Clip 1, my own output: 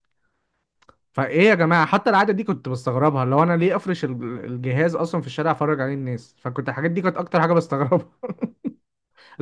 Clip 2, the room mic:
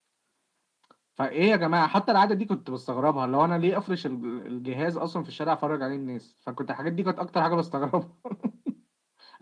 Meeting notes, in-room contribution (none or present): none